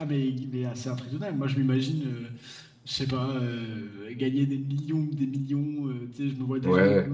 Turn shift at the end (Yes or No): No